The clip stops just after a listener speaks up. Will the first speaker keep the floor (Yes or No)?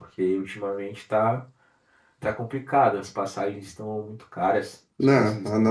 No